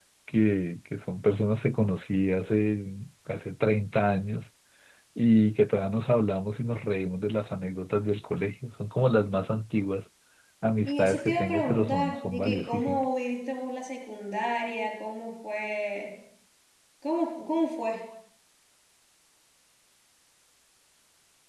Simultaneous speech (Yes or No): Yes